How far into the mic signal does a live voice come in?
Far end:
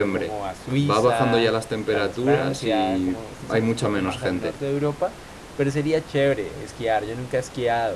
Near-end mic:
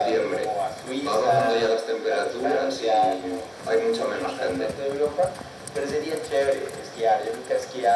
1 s

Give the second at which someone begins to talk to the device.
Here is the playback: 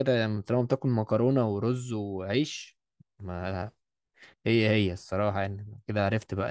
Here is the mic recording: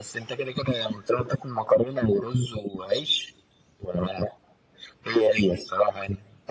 none

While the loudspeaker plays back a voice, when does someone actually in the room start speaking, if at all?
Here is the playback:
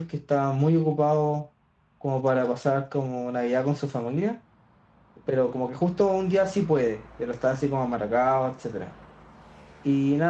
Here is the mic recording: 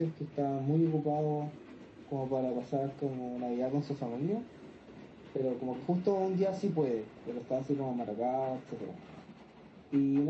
none

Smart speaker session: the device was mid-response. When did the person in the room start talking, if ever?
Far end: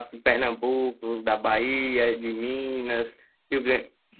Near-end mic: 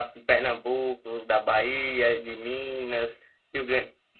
none

